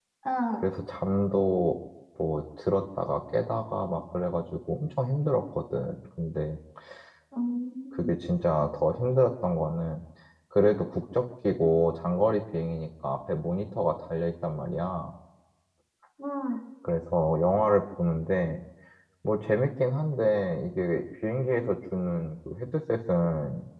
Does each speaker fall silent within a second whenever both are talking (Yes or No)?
Yes